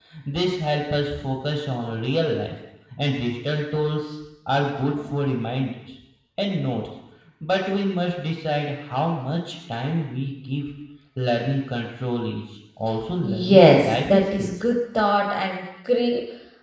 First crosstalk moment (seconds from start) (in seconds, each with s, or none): 13.2 s